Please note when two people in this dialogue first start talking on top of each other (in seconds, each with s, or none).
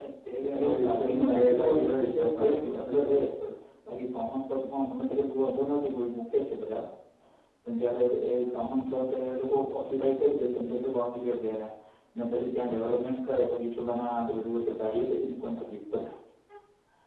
0.6 s